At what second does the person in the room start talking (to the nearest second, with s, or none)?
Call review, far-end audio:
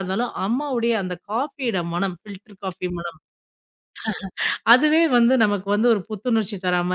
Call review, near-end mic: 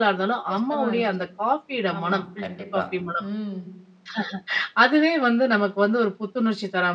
1 s